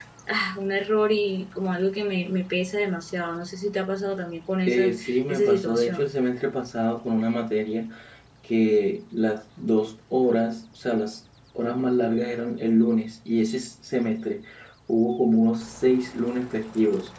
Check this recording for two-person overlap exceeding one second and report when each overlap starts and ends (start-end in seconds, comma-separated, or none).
4.7-6.1